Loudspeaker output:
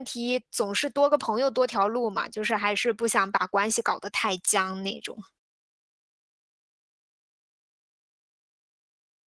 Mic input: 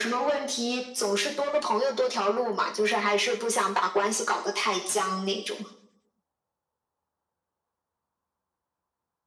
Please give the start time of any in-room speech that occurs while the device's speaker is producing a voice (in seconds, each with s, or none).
none